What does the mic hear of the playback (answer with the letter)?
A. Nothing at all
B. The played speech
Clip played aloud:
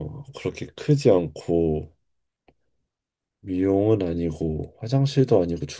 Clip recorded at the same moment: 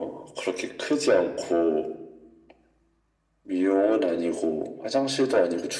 B